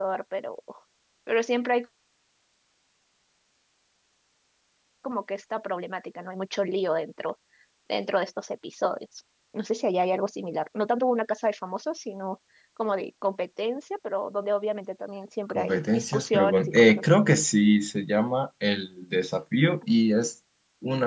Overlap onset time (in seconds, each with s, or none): 15.5 s